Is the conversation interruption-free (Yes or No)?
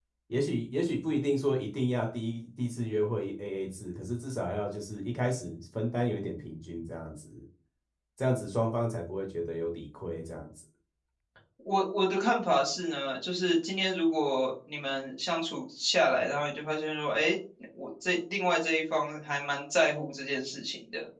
Yes